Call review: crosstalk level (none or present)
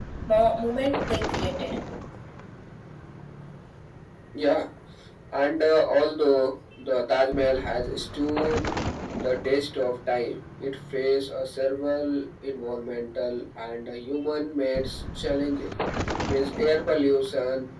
none